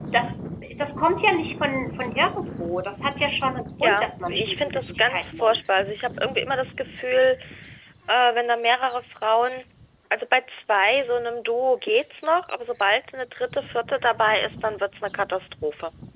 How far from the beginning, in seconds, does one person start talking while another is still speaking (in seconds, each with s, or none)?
3.8 s